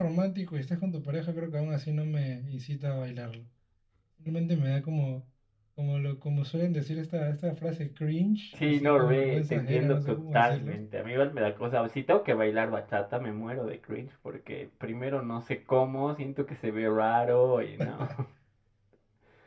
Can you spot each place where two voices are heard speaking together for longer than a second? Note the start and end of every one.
8.6-10.8

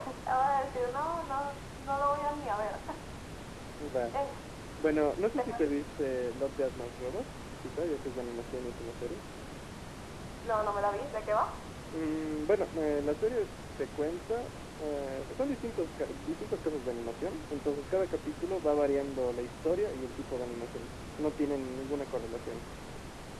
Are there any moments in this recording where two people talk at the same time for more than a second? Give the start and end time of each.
none

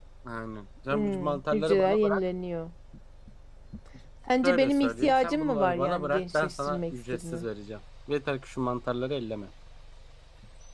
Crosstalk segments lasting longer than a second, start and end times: 0.9-2.2, 4.4-7.5

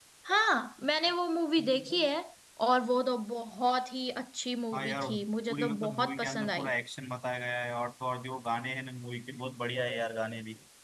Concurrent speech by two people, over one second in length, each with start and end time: 5.5-6.7

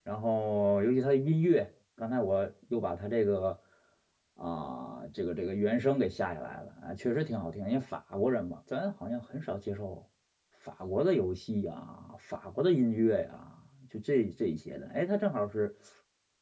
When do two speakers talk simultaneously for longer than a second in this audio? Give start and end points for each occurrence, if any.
none

